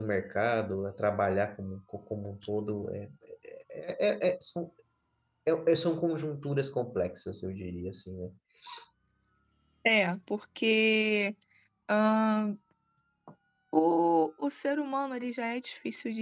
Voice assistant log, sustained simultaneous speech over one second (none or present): none